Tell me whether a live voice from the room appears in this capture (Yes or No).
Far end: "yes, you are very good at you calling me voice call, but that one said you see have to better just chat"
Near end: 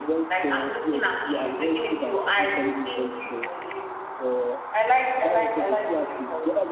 Yes